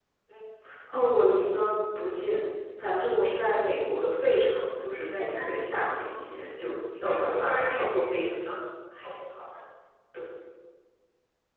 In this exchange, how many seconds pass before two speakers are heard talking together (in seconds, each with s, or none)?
5.2 s